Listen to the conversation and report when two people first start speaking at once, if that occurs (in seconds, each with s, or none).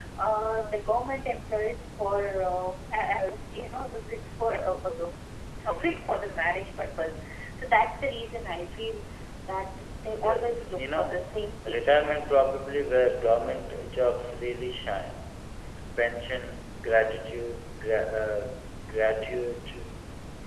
10.2 s